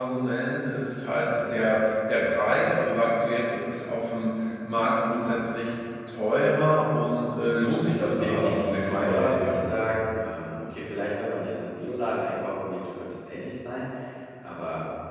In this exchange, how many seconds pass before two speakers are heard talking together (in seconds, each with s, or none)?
7.9 s